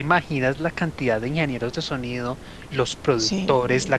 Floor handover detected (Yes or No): No